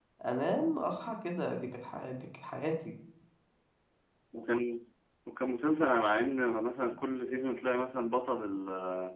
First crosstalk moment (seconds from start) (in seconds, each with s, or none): none